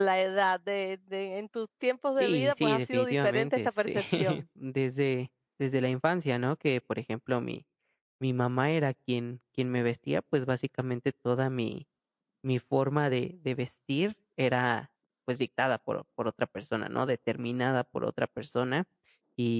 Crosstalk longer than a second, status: present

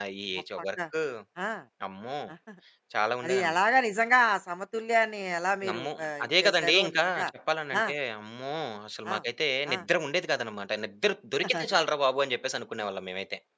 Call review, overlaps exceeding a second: present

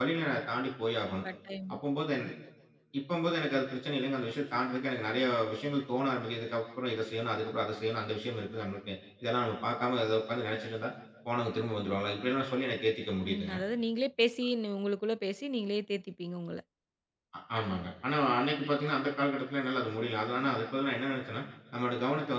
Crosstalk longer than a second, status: none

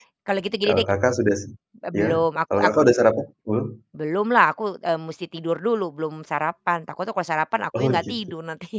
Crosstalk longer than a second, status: none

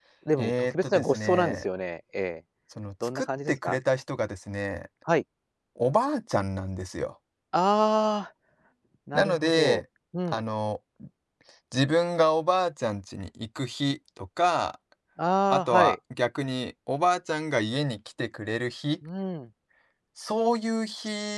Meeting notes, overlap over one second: present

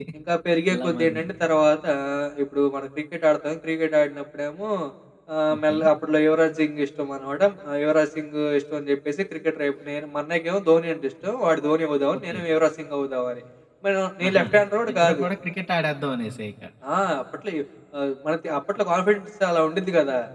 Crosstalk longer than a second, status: none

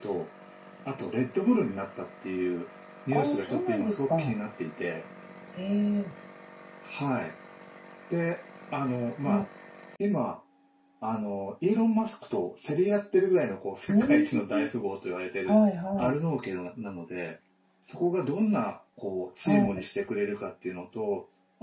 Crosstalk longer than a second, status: present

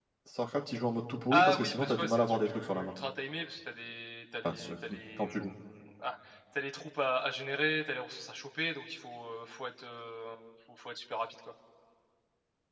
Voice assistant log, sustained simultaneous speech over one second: present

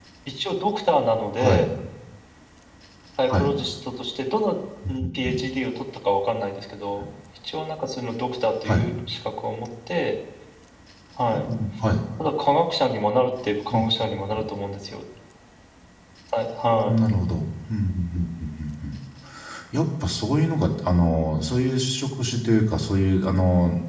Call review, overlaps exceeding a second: none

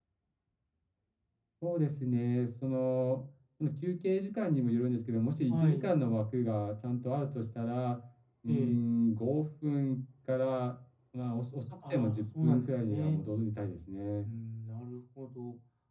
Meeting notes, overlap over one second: present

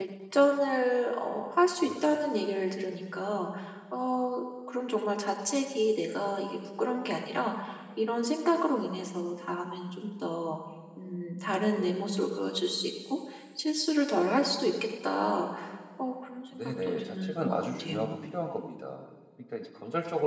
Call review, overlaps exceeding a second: present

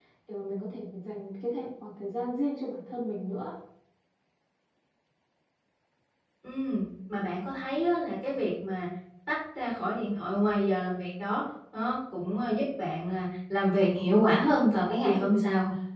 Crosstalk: present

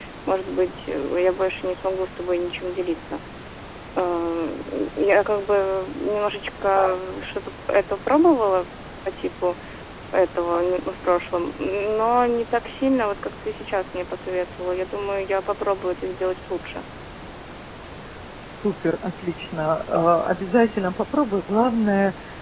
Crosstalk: none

